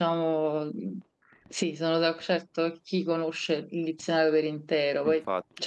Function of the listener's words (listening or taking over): listening